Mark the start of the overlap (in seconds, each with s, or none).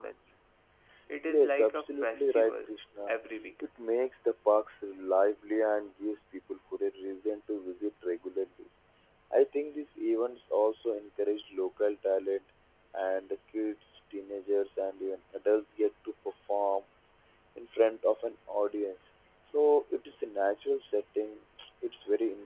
1.3 s